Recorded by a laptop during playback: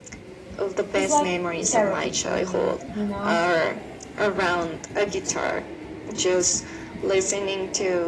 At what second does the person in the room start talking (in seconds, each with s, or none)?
0.9 s